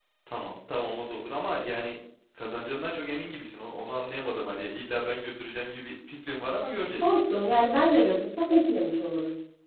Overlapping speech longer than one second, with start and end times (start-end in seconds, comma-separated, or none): none